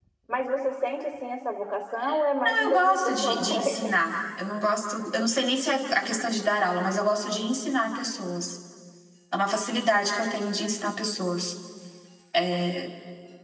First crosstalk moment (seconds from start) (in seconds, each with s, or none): 2.5 s